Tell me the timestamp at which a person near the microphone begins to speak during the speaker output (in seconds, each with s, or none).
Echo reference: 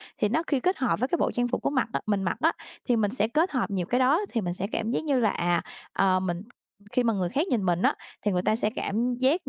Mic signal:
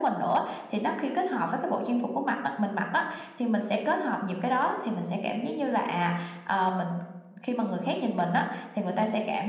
none